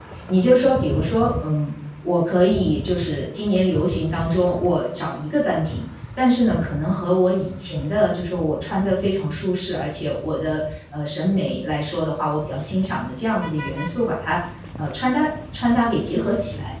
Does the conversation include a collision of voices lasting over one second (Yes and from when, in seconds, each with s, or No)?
No